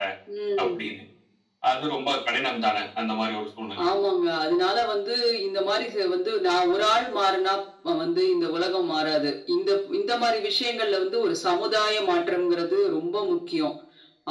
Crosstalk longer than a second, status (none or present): none